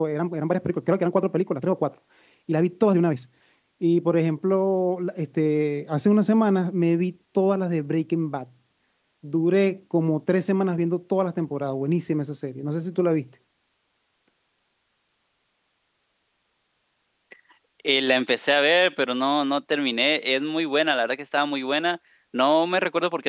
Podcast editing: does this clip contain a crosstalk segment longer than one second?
No

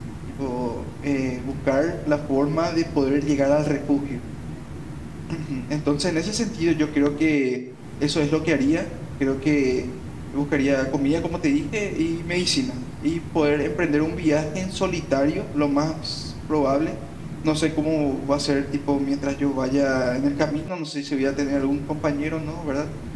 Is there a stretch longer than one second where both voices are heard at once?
No

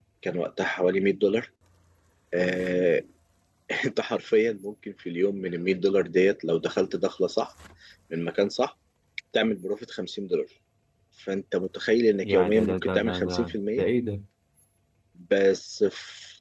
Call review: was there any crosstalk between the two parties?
Yes, from 12.2 s

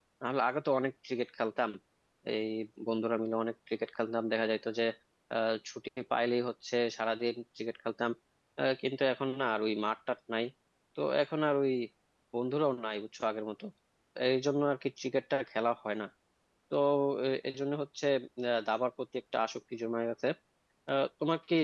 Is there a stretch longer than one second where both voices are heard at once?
No

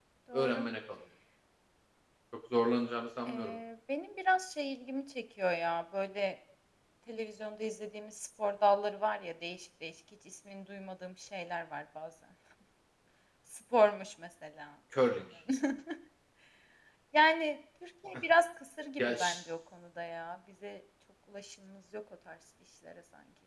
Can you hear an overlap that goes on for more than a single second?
No

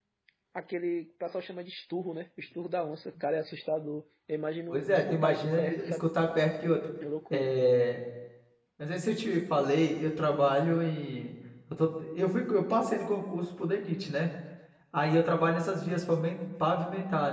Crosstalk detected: Yes, from 4.7 s

